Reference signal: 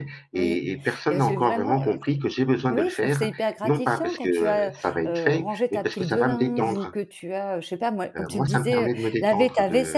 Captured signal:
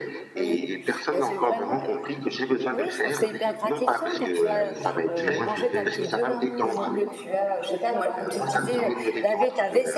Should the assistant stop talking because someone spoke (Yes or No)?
Yes